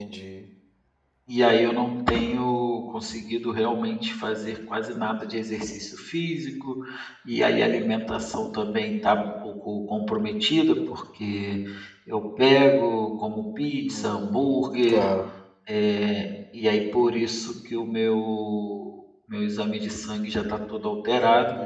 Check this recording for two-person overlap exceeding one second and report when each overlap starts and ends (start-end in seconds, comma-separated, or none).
13.8-15.1